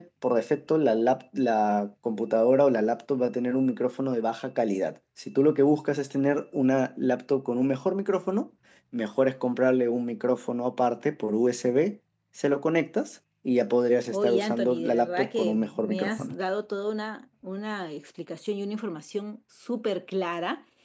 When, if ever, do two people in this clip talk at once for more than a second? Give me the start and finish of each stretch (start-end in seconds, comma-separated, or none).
14.1-16.4